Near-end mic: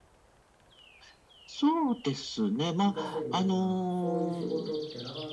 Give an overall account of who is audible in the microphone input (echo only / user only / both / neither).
both